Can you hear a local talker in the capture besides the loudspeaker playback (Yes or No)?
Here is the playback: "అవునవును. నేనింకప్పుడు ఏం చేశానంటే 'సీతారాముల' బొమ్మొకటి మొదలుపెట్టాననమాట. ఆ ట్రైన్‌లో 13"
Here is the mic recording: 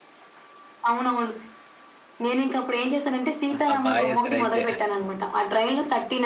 Yes